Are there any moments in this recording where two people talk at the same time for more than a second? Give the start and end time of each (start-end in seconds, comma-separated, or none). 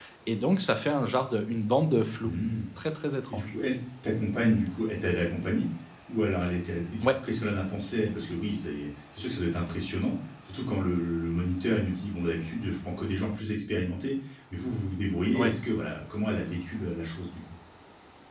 none